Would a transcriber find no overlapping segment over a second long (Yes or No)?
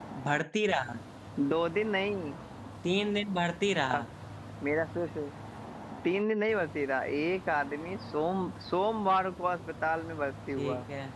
Yes